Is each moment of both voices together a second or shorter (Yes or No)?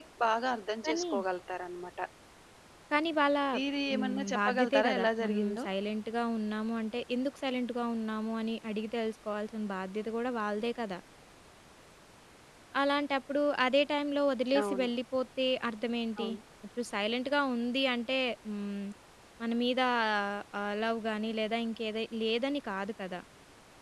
No